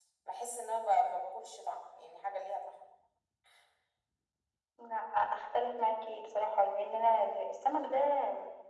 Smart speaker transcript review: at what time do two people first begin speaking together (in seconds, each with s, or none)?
none